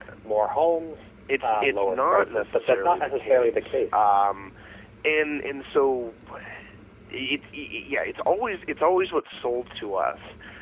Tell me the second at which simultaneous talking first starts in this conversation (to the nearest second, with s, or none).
1 s